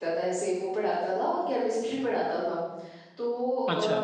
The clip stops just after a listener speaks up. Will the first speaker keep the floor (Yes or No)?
Yes